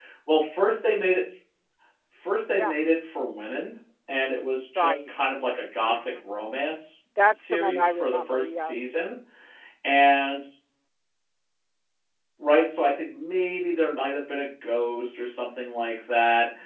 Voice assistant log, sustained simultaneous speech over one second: present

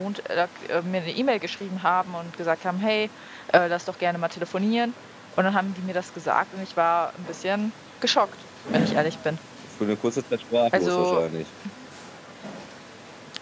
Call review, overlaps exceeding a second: none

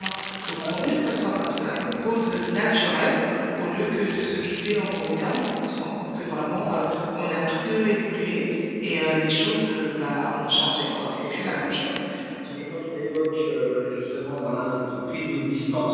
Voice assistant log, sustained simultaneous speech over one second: none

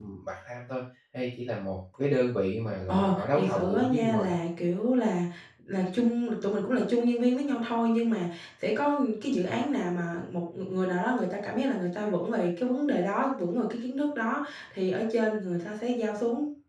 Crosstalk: present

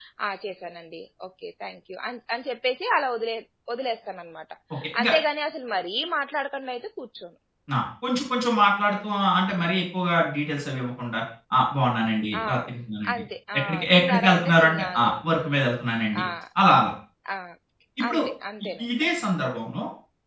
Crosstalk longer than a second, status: present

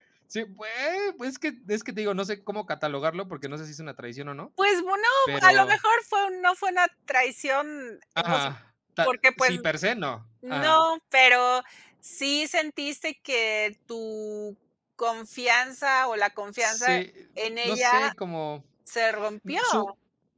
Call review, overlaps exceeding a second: none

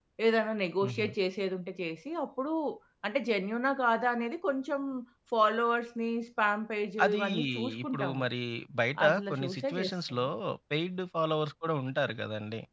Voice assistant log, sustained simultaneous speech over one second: present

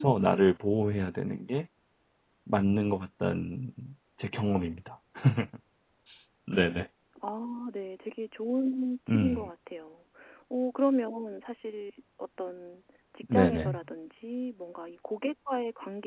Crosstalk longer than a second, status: none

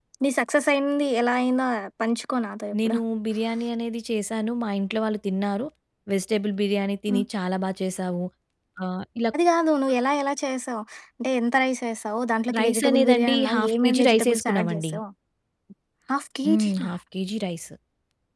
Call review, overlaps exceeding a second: present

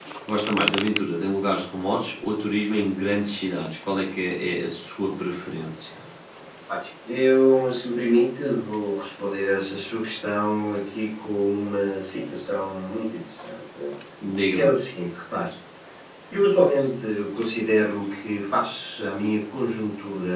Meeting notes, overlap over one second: none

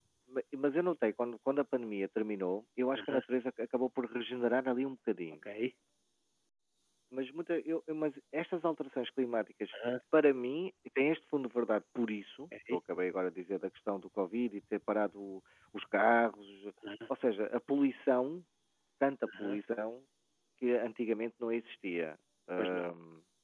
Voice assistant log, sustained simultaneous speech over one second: none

